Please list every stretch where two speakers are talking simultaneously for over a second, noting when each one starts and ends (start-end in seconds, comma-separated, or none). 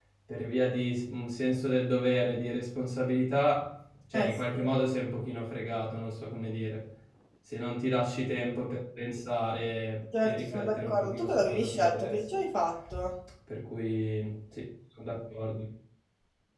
10.2-12.2